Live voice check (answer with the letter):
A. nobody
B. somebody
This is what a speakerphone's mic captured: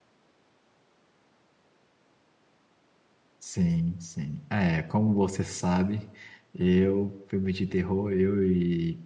B